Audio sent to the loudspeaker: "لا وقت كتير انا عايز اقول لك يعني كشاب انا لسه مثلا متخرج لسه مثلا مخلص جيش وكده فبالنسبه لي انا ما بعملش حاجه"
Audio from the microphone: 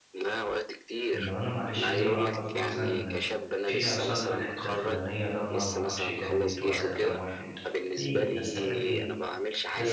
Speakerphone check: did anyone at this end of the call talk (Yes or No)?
Yes